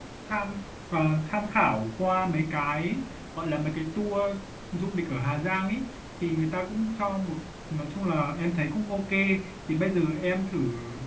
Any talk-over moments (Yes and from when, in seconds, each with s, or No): No